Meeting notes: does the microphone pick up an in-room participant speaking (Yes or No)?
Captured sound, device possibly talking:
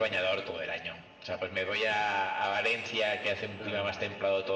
Yes